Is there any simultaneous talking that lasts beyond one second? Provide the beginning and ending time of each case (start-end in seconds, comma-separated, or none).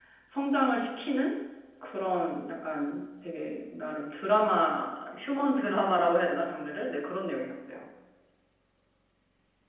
none